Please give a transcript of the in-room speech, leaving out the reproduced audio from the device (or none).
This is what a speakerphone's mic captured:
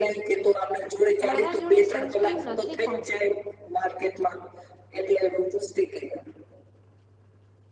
મારા જોડે સનસ્ક્રીમ નથી પણ.